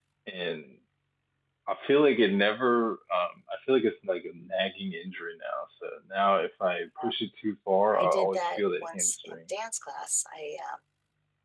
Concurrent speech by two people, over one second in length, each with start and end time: 7.9-9.3

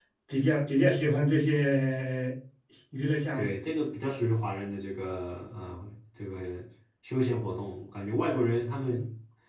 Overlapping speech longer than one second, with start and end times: none

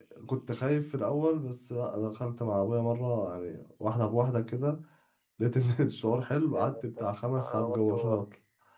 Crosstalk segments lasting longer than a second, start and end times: 6.5-8.1

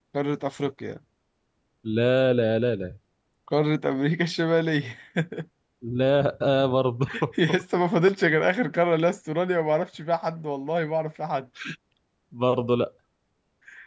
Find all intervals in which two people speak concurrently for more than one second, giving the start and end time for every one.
none

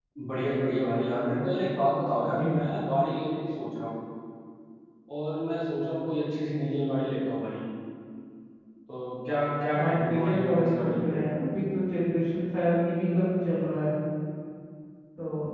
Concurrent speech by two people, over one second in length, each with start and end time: 9.8-11.3

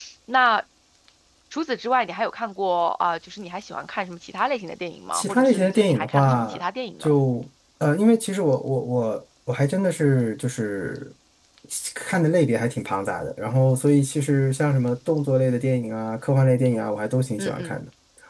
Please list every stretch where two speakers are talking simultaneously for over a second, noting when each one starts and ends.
5.1-6.6

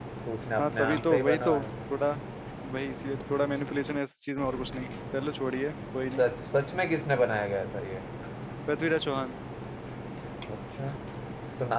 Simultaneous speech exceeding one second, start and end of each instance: 0.6-1.9

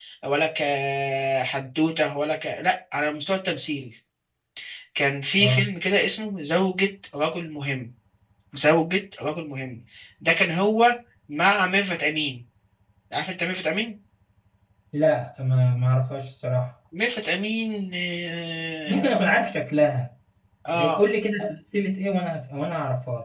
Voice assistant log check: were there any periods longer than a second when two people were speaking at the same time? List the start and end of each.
none

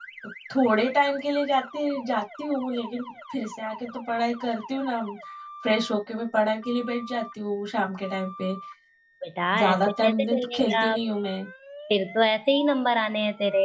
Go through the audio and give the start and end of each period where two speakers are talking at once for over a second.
9.6-10.9

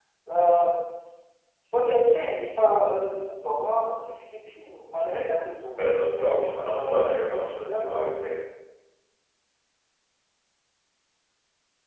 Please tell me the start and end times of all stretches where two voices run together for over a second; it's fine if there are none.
5.8-8.1

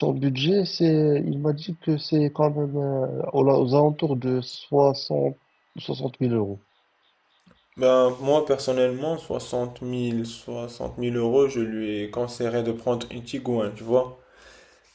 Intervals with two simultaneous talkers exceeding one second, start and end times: none

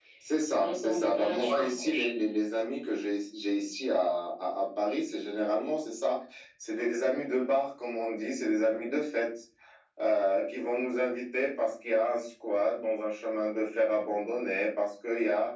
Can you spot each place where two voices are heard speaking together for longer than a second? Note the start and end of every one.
0.6-2.1

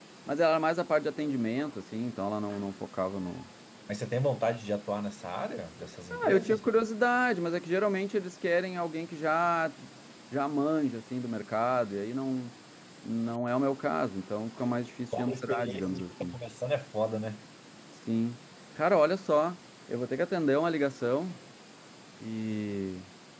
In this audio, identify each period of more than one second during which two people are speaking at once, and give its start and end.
15.2-16.4

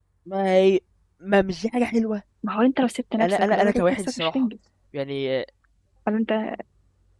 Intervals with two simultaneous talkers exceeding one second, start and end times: 3.2-4.5

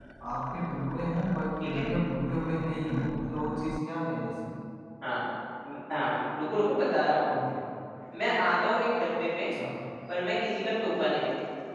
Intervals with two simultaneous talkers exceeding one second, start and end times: none

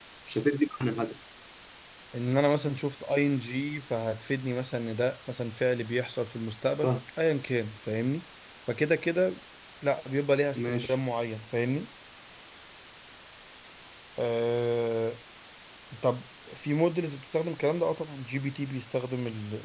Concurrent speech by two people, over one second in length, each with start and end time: none

